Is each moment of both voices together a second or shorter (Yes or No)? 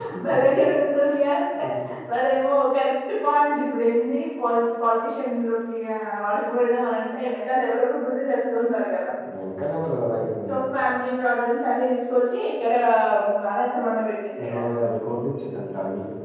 Yes